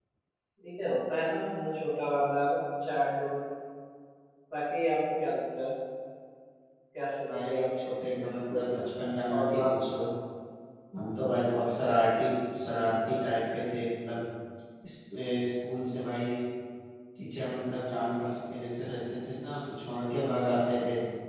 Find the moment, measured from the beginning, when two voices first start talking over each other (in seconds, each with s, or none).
7.3 s